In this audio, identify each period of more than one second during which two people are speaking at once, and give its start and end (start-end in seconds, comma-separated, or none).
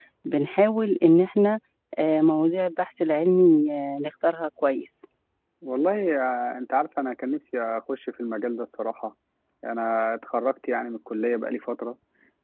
none